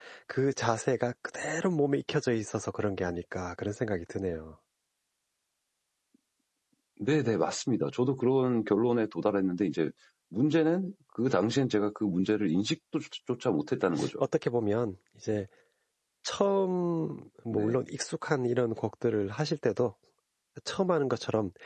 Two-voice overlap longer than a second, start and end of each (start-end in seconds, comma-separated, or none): none